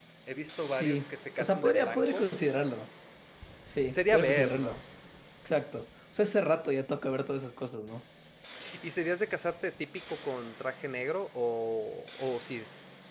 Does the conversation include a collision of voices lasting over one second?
Yes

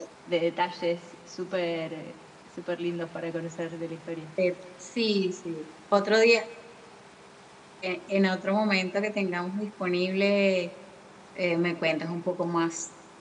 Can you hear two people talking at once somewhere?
No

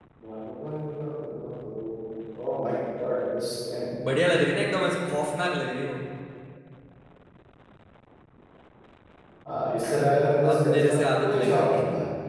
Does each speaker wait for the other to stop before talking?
No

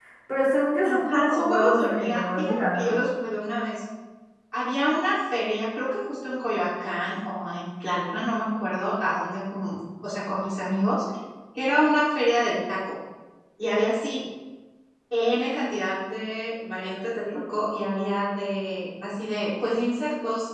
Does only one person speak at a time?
No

